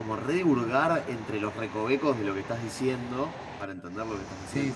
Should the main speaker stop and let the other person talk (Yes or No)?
Yes